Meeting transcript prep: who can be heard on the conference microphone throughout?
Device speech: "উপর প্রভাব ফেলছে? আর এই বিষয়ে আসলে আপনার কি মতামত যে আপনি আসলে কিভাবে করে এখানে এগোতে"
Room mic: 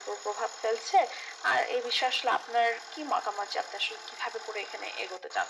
echo only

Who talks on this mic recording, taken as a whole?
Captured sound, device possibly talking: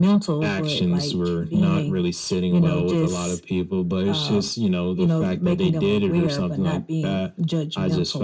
echo only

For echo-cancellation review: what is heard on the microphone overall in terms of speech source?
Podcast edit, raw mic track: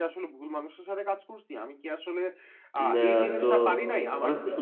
both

